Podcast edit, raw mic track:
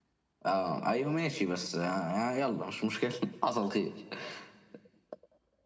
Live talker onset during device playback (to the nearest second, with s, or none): none